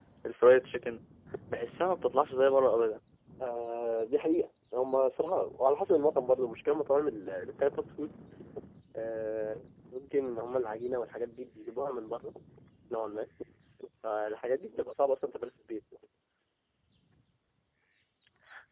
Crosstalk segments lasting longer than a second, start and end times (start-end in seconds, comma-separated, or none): none